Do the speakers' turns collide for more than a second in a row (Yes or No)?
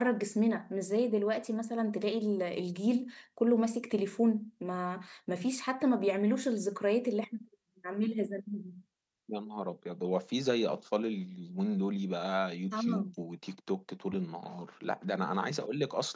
No